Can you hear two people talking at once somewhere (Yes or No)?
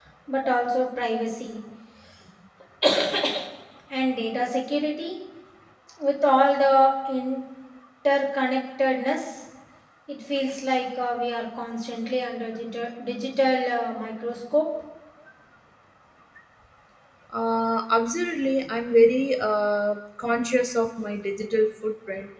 No